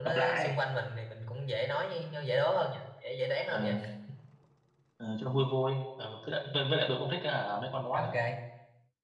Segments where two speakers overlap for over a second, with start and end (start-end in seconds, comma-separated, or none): none